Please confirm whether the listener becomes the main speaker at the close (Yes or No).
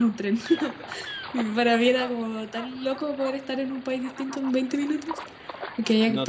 Yes